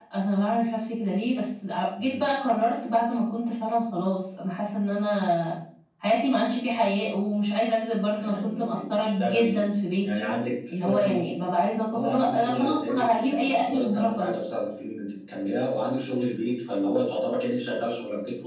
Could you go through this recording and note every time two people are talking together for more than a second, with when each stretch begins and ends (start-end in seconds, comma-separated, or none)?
8.2-9.6, 11.9-14.3